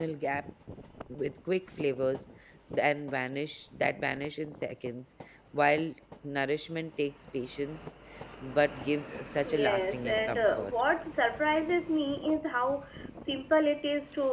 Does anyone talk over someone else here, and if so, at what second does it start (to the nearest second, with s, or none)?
9 s